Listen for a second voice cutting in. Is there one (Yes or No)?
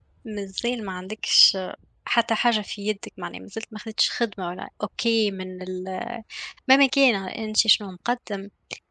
No